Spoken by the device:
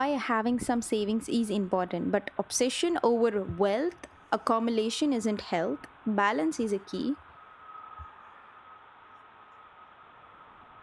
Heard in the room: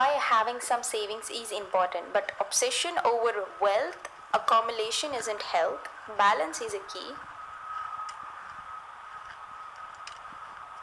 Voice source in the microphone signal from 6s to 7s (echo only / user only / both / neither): echo only